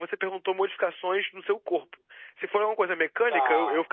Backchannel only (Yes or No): Yes